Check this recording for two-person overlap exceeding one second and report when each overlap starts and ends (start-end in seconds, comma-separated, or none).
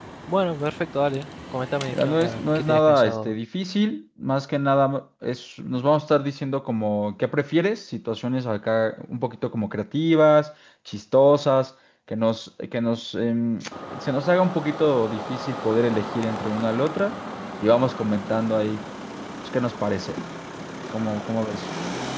1.9-3.3